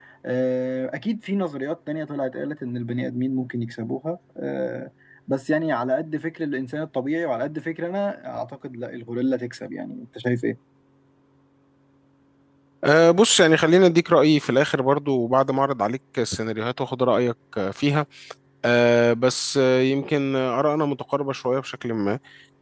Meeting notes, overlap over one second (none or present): none